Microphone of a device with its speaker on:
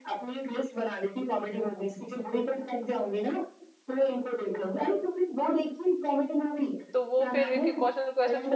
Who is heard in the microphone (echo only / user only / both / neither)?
both